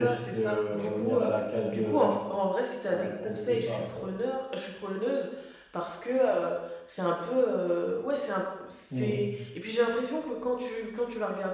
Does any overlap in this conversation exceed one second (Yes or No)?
Yes